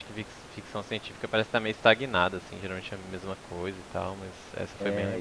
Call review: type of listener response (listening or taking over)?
taking over